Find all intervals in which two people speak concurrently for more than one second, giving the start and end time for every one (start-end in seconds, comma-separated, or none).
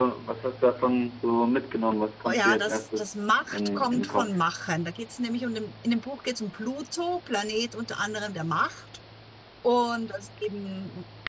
2.2-4.4